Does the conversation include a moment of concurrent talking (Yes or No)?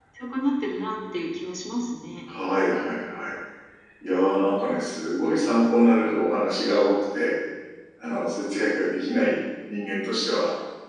No